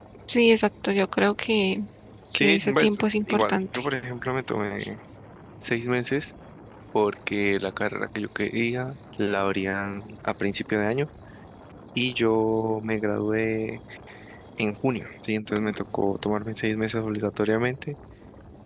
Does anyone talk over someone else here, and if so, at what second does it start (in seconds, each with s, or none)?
2.4 s